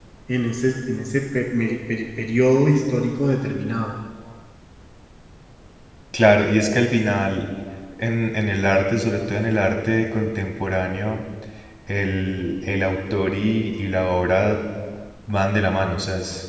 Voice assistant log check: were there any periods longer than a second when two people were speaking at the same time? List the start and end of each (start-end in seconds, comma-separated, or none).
none